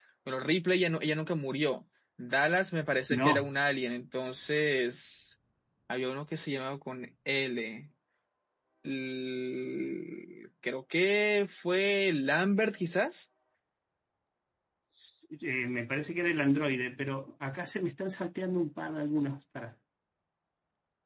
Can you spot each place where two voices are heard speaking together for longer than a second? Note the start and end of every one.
none

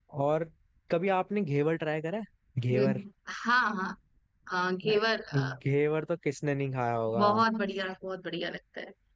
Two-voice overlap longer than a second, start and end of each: none

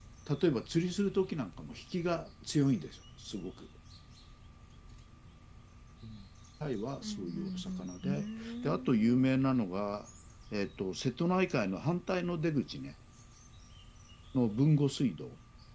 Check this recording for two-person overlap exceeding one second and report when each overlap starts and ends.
7.0-9.3

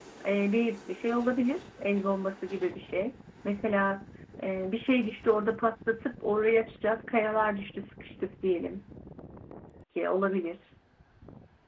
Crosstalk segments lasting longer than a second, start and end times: none

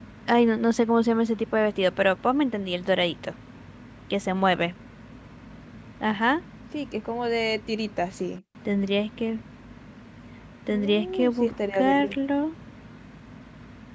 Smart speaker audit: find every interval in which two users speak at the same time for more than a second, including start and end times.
10.7-12.2

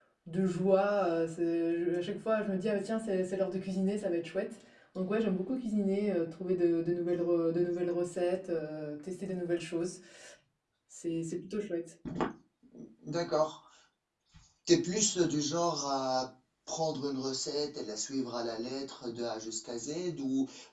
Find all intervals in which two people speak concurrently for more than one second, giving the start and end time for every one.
none

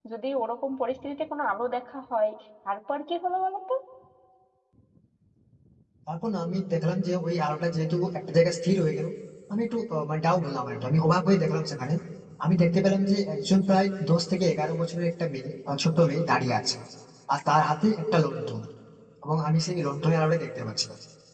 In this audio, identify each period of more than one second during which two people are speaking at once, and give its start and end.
none

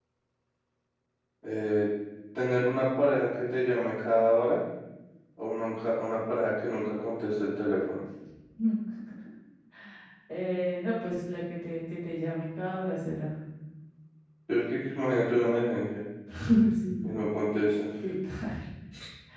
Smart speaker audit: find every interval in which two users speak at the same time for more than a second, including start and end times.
none

